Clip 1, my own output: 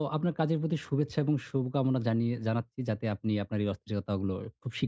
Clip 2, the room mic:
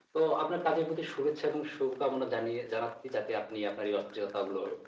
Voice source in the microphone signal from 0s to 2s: echo only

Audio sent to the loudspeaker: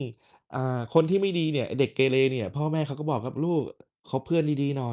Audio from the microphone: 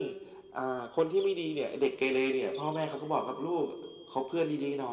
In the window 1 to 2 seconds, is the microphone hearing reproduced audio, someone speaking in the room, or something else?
echo only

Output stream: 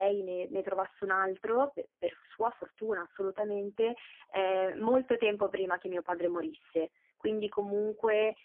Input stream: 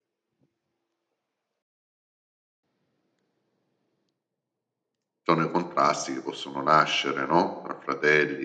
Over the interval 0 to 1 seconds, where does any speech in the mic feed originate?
neither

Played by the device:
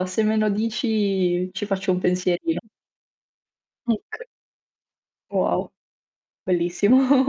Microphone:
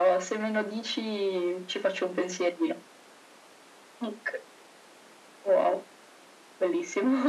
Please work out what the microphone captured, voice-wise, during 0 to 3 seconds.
echo only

